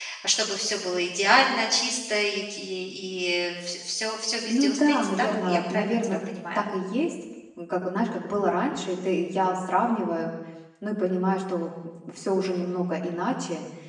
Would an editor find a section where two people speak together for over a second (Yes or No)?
Yes